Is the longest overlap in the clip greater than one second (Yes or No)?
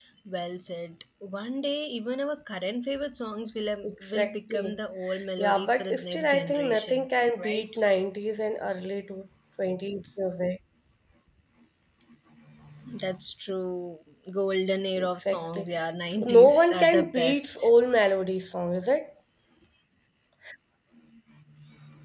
Yes